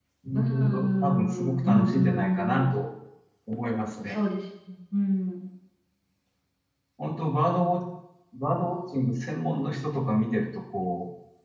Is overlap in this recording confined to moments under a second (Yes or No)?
No